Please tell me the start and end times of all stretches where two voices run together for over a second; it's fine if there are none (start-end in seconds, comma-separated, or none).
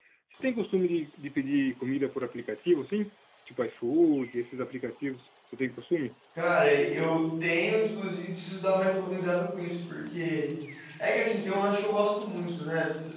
none